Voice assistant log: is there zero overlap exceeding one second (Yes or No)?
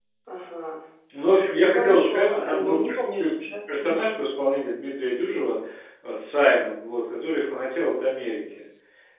No